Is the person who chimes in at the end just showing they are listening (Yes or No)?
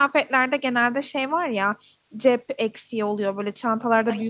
Yes